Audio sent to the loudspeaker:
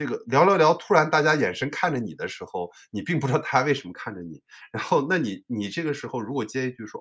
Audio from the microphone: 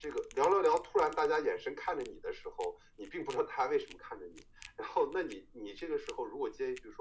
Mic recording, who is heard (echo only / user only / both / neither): echo only